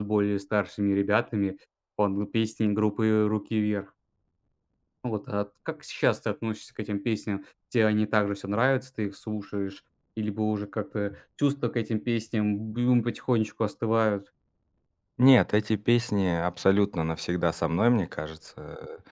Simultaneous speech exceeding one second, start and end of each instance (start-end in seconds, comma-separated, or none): none